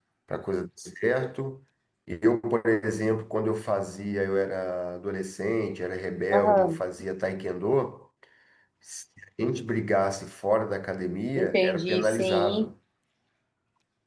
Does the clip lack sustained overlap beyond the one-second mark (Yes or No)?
No